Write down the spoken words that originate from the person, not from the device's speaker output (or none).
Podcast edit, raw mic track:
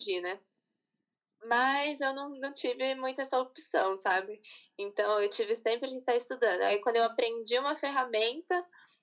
none